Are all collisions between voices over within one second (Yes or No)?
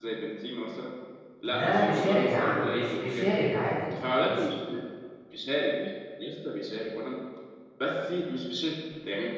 No